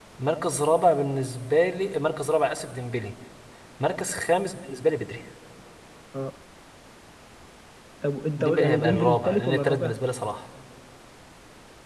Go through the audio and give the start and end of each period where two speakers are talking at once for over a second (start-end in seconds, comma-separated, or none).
8.4-9.9